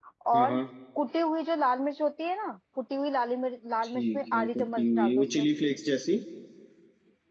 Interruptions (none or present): present